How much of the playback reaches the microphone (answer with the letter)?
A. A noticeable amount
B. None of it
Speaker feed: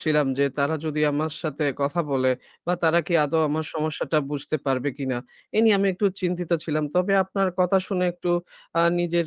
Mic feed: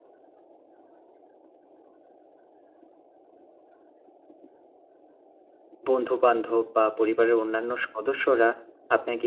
B